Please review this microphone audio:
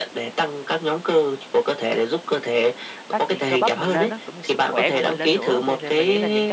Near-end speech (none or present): present